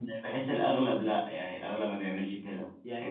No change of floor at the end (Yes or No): No